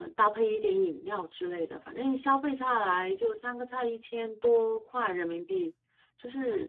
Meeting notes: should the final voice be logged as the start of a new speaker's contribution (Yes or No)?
Yes